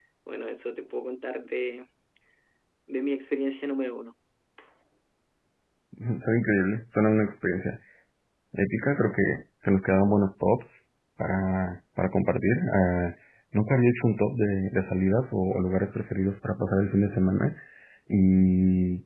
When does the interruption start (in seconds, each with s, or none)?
none